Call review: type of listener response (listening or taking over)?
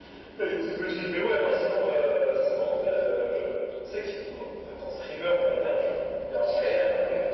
taking over